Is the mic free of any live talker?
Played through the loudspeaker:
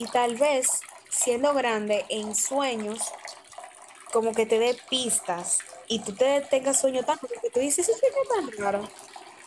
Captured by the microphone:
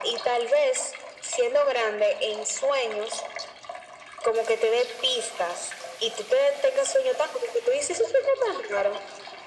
Yes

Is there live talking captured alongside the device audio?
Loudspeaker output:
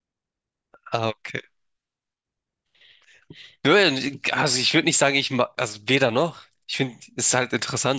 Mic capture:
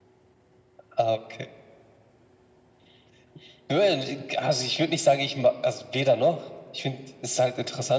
No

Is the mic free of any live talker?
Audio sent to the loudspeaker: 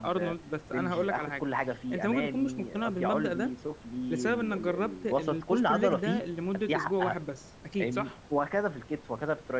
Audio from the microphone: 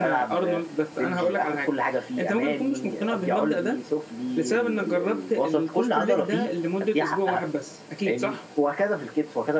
Yes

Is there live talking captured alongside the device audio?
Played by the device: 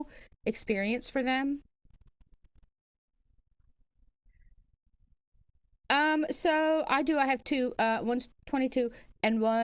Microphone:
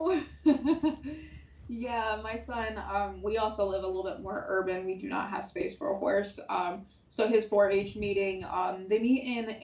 Yes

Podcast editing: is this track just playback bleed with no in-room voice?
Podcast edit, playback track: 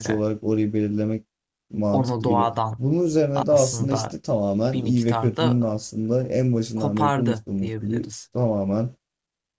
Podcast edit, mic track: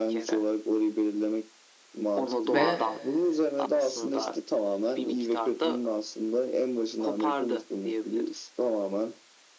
No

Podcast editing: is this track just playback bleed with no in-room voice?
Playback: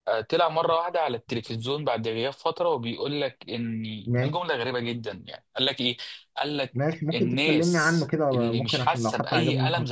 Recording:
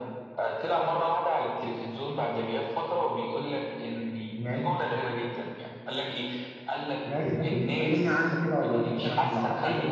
No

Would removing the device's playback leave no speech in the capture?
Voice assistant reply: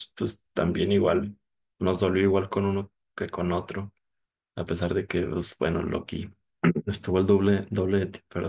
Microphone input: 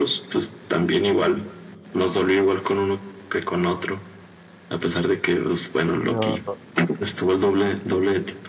No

